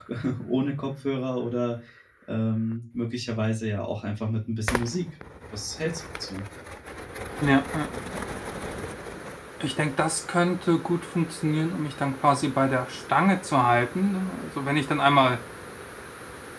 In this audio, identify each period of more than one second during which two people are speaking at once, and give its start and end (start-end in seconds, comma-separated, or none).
none